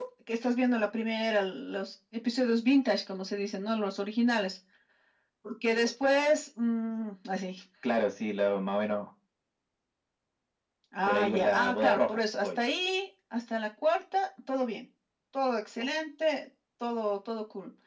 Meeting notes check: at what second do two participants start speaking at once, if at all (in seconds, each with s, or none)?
11.0 s